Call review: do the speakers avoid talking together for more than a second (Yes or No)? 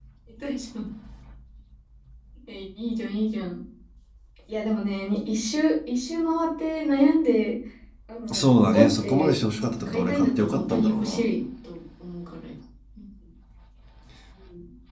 No